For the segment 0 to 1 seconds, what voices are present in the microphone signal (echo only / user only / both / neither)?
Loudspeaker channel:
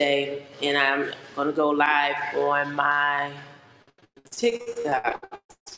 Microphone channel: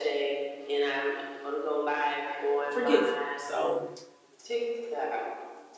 echo only